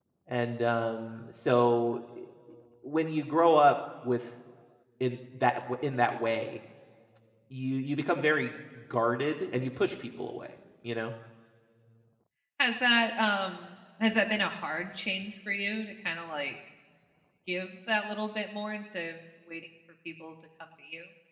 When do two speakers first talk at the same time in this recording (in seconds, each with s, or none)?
none